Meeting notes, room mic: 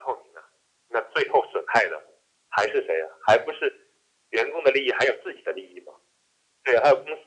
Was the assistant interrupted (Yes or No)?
No